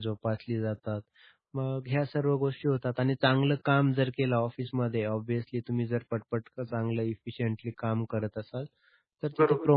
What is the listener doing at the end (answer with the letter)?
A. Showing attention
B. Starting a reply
A